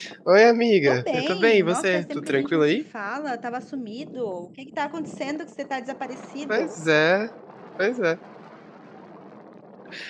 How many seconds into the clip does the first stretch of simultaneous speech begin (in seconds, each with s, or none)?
0.8 s